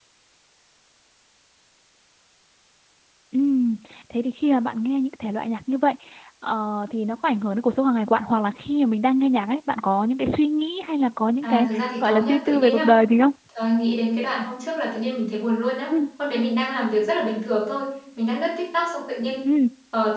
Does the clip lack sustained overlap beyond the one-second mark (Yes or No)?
No